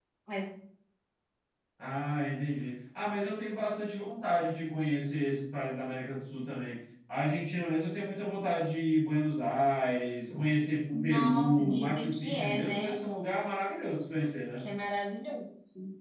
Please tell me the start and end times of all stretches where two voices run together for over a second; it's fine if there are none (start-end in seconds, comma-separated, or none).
10.9-13.0